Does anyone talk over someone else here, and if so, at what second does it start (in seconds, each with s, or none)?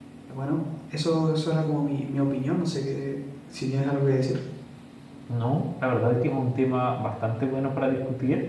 none